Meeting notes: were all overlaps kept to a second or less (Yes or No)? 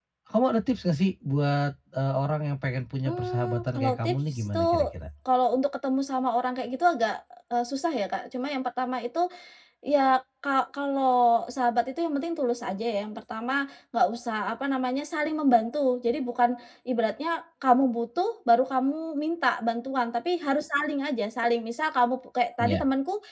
No